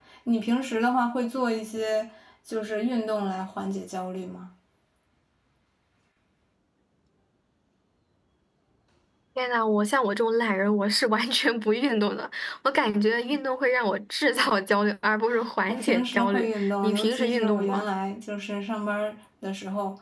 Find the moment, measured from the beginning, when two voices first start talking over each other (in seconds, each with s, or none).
15.7 s